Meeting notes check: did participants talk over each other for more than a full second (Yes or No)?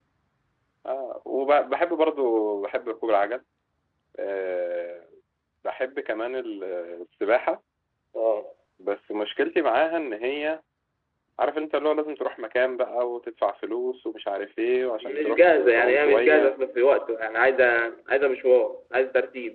Yes